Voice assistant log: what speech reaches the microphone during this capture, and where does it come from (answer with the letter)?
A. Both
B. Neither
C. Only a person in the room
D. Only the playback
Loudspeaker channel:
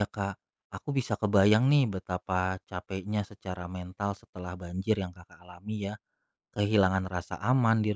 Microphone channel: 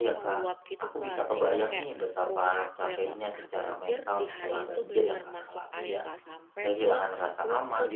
A